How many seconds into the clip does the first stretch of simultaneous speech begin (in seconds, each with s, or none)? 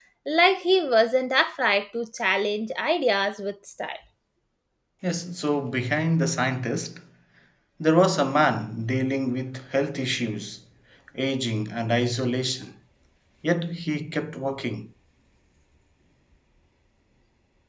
none